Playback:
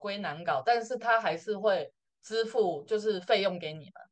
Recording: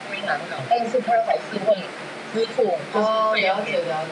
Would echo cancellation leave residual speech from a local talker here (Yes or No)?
Yes